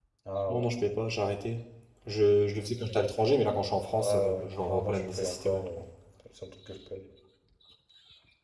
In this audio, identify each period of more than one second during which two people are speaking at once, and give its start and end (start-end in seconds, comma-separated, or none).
4.0-5.7